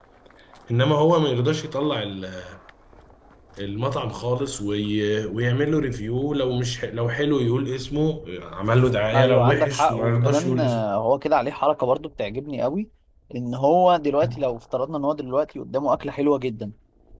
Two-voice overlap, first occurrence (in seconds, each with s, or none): 9.1 s